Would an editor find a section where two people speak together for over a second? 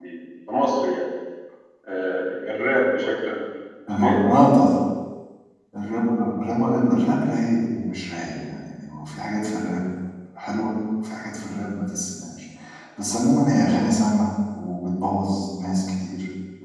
No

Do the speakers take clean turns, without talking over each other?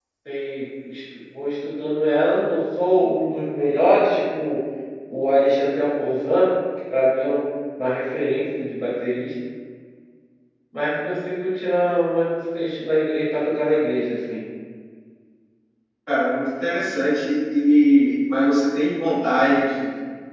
Yes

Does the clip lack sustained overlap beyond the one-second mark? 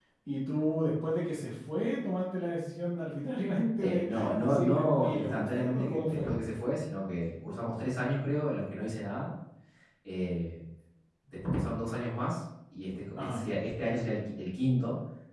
No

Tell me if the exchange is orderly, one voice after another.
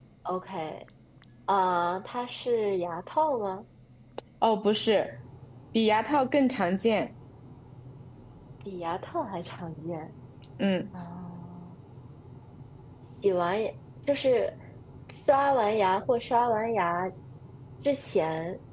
Yes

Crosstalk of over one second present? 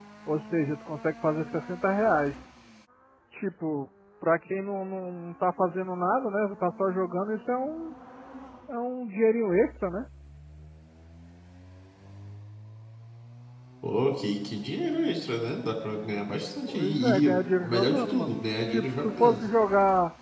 Yes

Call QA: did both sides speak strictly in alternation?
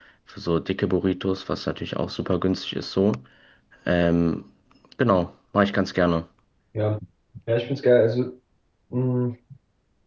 Yes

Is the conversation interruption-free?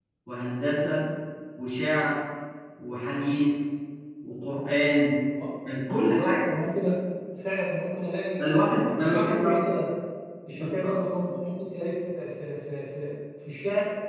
No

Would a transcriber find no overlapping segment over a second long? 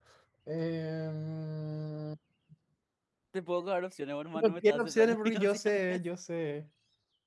No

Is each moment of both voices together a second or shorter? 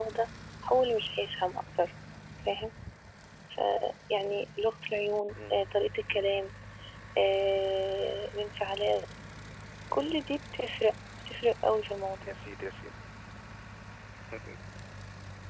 Yes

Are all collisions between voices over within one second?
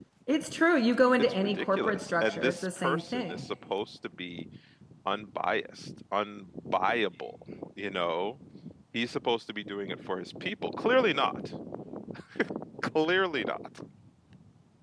No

